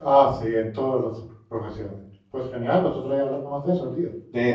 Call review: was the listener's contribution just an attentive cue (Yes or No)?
No